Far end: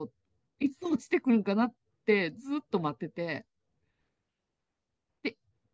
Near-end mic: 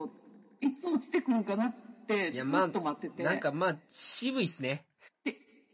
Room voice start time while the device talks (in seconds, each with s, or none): 2.3 s